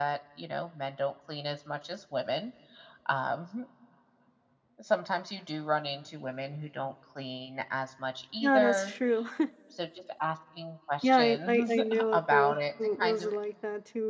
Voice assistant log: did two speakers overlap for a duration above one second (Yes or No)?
Yes